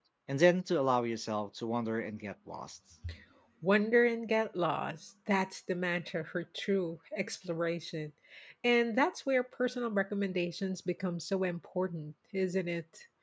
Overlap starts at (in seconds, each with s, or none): none